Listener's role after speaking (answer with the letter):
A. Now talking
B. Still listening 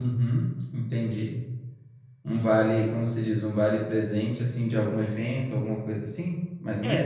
A